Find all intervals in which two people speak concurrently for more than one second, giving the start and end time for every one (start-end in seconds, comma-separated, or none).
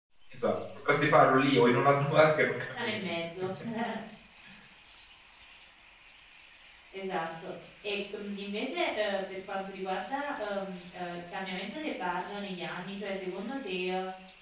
none